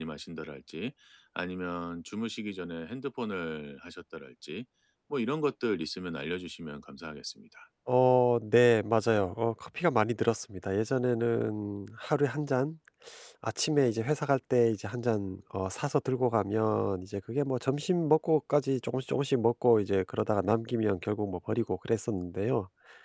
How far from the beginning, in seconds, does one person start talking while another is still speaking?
none

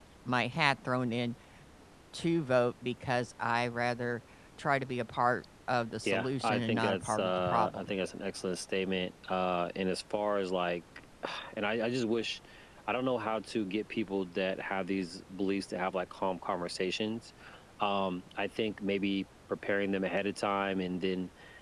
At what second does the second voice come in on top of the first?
6.0 s

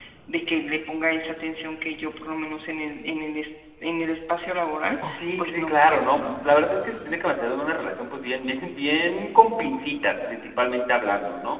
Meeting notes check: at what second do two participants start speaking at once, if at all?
5.1 s

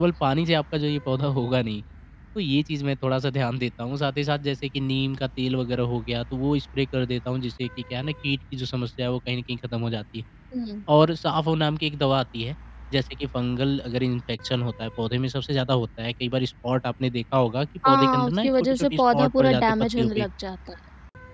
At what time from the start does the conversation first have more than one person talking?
17.8 s

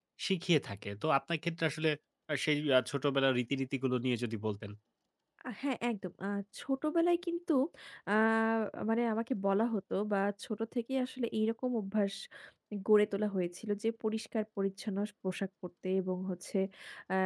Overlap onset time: none

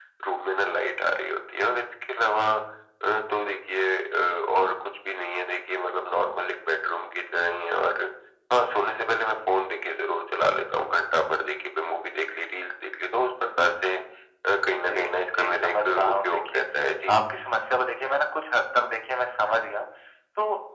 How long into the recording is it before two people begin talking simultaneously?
14.9 s

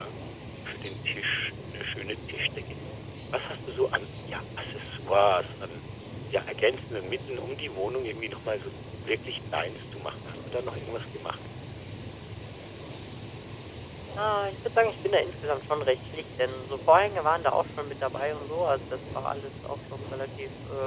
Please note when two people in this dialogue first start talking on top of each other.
none

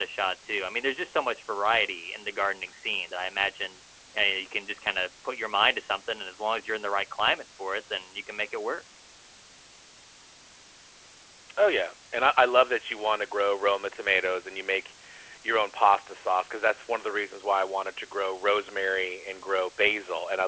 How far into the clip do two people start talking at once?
none

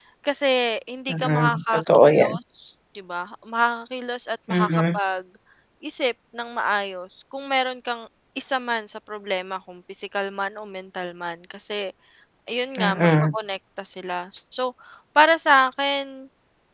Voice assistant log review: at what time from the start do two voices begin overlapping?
1.1 s

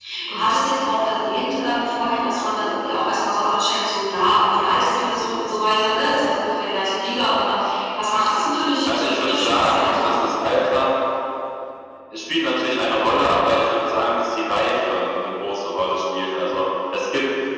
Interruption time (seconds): 8.8 s

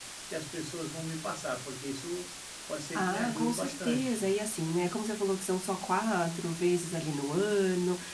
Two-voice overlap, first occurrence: 2.9 s

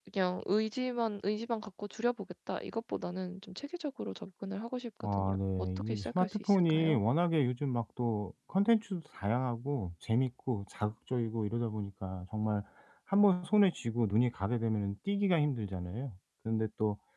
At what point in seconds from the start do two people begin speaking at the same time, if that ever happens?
5.0 s

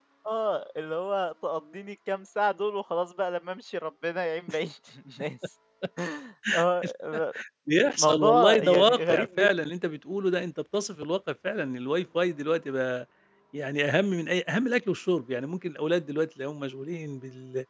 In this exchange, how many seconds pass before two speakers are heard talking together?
8.0 s

